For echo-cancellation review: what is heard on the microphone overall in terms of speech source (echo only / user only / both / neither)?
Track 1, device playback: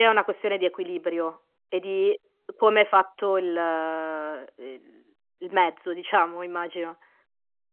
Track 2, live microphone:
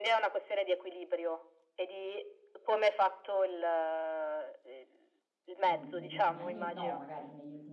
both